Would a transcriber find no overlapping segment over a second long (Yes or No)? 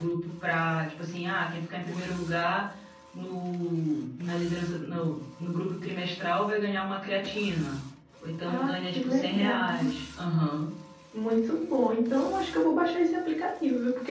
No